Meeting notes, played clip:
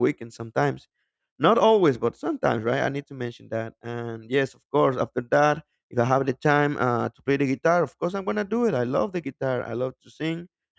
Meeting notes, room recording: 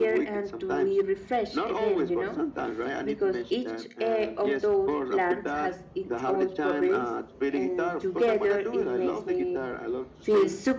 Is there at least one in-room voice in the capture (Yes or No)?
Yes